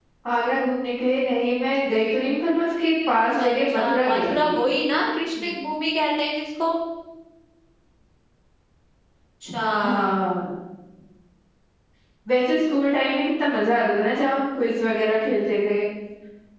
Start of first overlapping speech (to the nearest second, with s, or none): 3 s